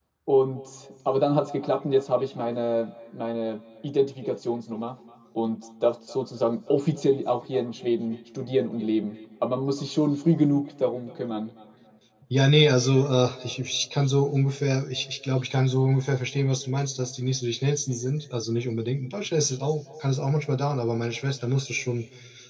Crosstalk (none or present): none